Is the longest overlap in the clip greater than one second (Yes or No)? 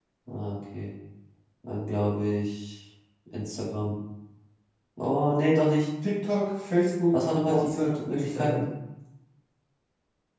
Yes